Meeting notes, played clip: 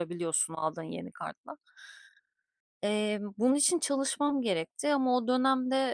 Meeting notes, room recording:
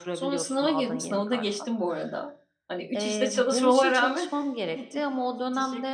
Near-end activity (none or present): present